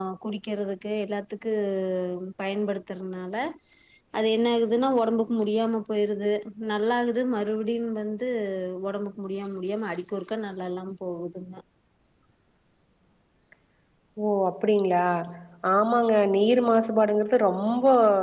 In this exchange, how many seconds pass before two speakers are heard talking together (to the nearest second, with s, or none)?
none